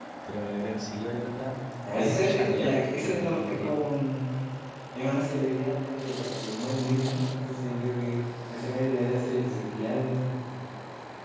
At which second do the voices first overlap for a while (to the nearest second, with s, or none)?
2 s